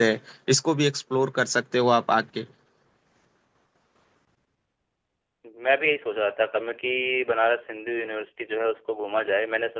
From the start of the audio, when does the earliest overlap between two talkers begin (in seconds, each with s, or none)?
none